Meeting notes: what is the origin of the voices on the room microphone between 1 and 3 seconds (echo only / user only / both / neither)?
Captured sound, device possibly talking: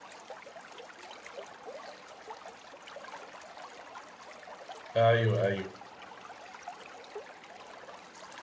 neither